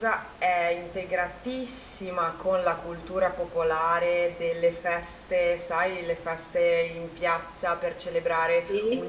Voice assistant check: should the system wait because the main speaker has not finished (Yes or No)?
Yes